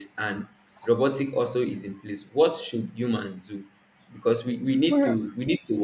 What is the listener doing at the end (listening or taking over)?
listening